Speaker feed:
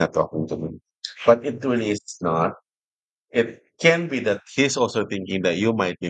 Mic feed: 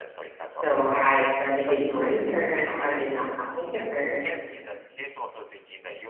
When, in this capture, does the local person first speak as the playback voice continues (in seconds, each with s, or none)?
0.5 s